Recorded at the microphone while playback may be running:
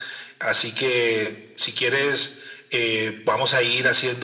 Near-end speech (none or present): none